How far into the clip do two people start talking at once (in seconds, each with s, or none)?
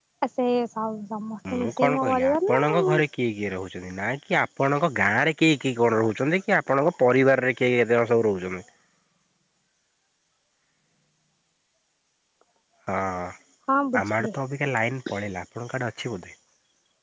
1.5 s